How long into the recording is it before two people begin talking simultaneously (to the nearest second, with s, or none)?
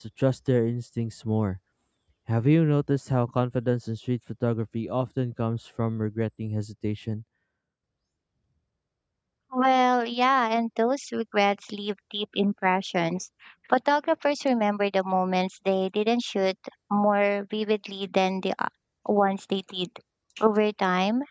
none